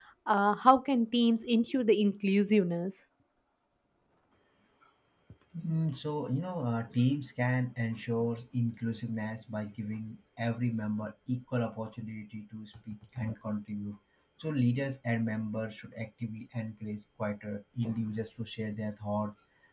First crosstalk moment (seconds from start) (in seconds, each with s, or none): none